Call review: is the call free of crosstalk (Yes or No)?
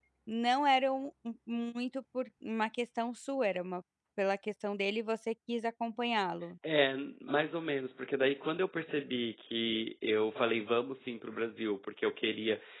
Yes